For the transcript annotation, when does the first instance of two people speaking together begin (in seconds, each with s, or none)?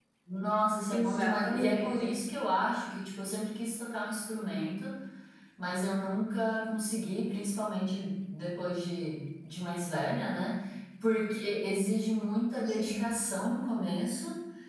0.9 s